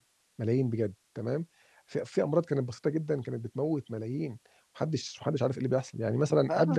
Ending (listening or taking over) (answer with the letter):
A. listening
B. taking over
B